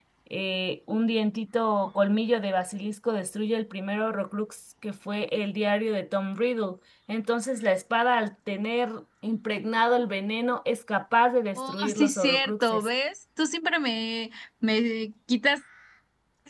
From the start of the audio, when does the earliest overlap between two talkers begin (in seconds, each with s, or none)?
11.6 s